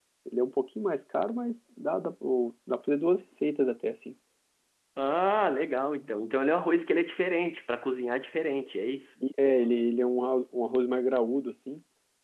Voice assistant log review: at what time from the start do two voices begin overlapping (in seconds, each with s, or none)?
none